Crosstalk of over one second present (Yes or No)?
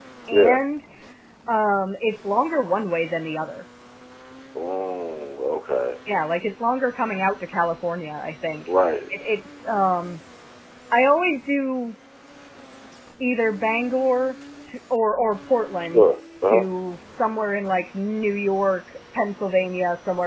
No